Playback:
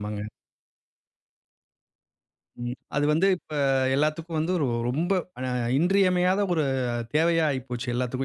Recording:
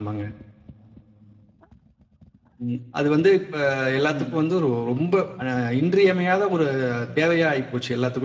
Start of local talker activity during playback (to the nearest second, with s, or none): 4 s